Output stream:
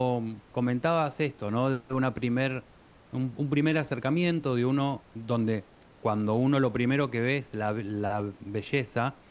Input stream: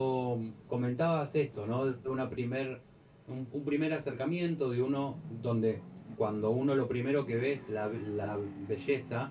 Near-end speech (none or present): none